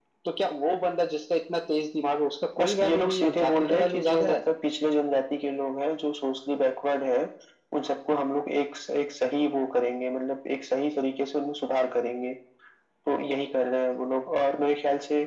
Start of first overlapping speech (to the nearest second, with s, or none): 3 s